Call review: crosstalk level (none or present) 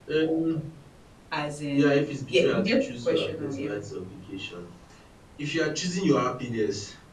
present